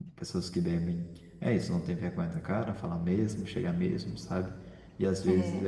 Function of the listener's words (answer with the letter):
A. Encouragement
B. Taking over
A